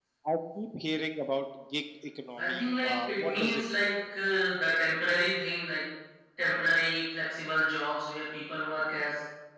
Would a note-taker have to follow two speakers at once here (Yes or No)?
Yes